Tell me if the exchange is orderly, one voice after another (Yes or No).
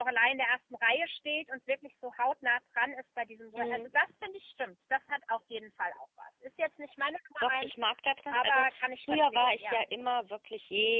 No